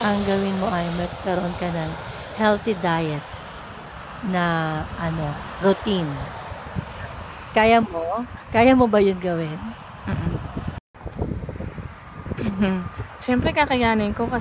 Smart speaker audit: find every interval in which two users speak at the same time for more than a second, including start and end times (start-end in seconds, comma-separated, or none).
none